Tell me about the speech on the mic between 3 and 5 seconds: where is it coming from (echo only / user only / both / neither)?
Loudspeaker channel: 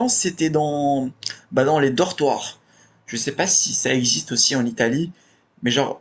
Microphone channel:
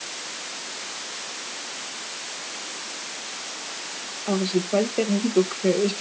user only